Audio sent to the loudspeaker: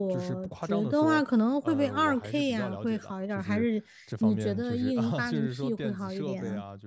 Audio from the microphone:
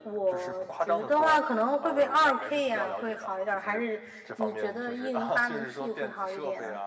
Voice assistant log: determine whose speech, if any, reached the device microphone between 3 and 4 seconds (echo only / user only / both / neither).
echo only